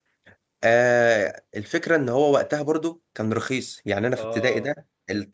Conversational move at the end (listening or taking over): listening